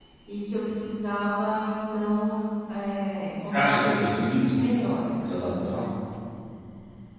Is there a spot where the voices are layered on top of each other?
Yes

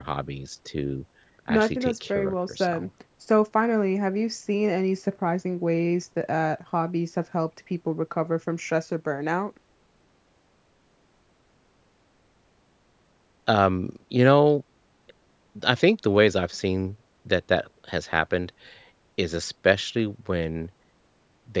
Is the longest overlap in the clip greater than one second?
Yes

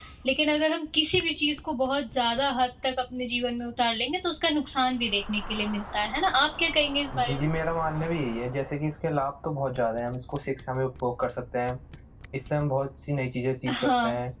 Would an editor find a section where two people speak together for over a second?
No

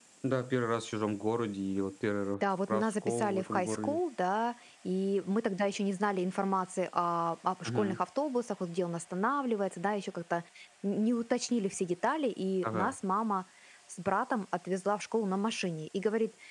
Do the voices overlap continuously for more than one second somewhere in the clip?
Yes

